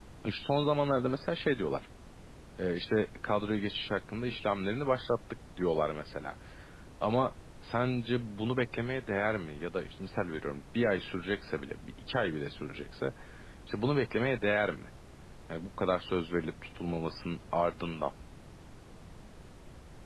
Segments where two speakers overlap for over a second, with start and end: none

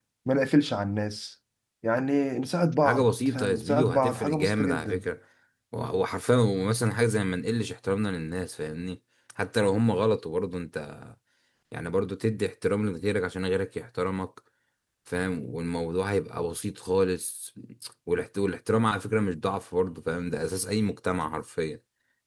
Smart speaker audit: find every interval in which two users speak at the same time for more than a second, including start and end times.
2.8-5.0

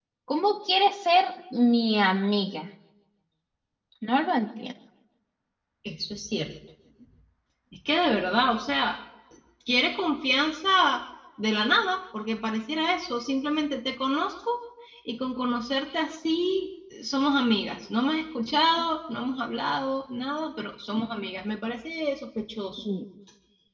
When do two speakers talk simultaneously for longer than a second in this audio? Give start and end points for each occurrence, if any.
none

